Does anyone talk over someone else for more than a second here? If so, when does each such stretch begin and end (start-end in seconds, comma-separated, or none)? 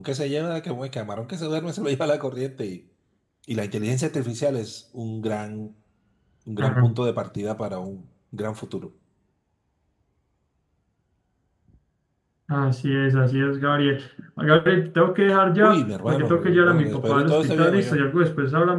15.6-18.0